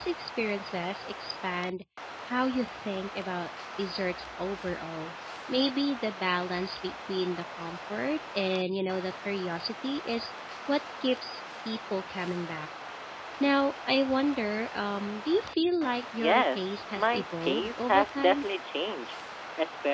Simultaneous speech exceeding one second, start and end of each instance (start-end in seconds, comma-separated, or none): 16.2-18.4